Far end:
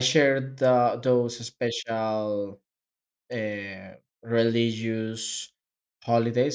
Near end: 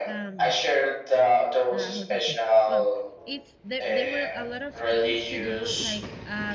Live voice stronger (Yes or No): No